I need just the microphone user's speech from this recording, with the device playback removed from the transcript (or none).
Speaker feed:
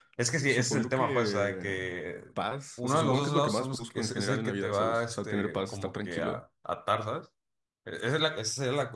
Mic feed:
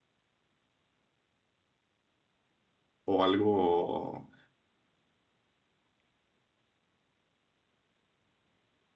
o algo,